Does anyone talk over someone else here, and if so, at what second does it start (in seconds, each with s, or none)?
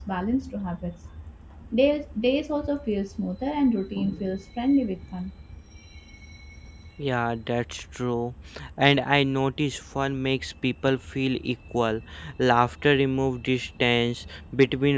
none